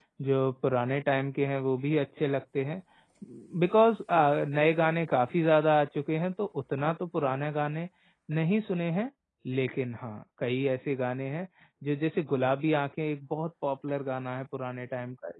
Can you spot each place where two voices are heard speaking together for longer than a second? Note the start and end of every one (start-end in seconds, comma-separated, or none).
none